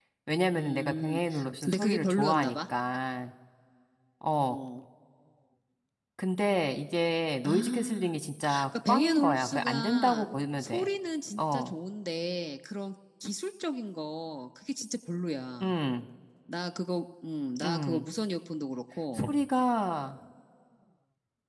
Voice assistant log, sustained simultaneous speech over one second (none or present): present